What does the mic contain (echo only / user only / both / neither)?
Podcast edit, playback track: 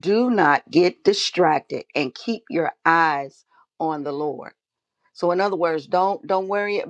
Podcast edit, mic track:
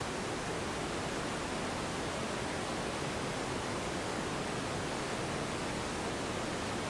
neither